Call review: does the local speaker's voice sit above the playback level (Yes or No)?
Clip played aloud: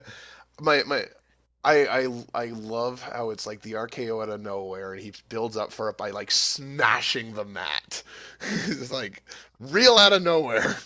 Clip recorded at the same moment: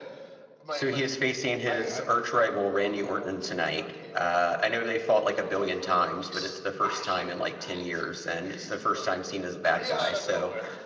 Yes